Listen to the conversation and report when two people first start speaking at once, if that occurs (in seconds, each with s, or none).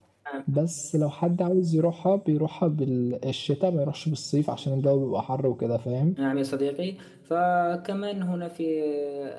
none